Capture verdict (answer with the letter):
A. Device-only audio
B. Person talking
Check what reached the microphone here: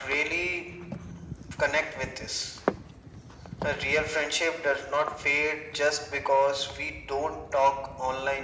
A